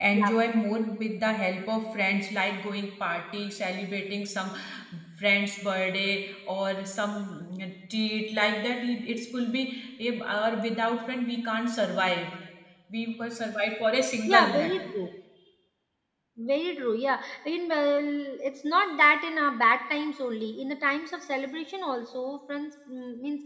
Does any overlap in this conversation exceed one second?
No

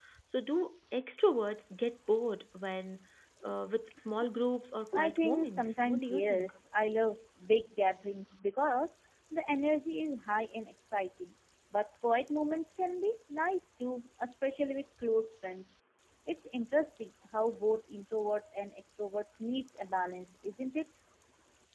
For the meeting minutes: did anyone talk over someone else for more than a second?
Yes, from 4.9 s

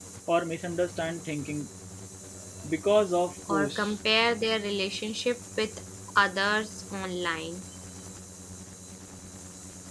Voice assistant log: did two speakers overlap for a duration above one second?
No

